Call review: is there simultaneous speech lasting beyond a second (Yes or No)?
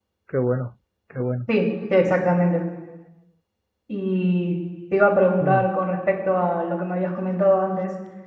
No